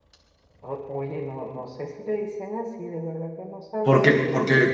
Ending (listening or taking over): taking over